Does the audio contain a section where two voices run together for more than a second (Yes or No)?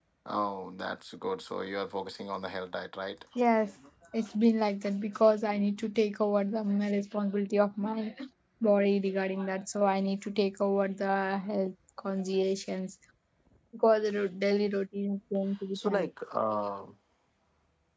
No